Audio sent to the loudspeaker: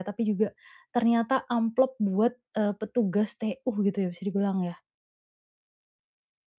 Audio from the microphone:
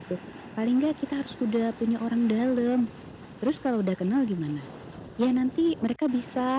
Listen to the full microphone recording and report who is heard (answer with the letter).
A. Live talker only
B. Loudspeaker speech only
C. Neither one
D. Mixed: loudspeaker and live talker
A